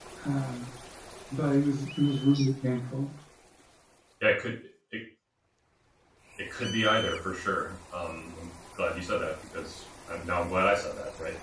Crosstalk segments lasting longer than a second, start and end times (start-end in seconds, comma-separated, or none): none